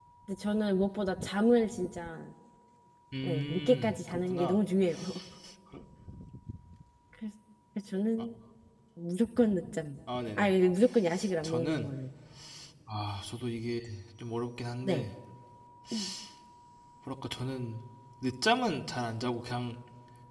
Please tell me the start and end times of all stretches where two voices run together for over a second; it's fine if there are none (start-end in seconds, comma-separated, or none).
3.2-4.6